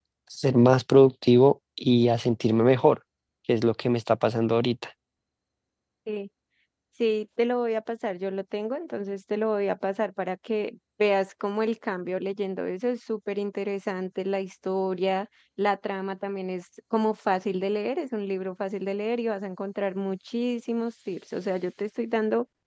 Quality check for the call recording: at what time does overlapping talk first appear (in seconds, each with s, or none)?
none